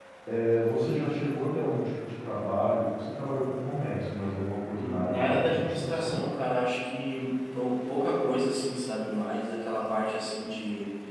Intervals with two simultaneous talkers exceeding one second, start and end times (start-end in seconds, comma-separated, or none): 4.7-6.2